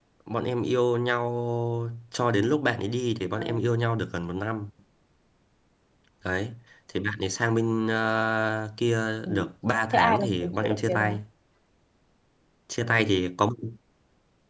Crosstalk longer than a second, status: present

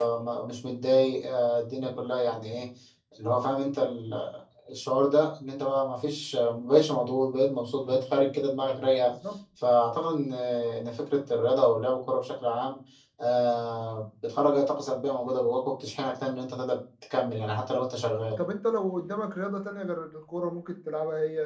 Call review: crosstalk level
none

